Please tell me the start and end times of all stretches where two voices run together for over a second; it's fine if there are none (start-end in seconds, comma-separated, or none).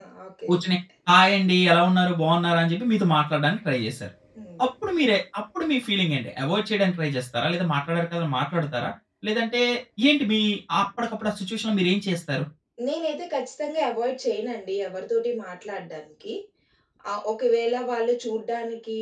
none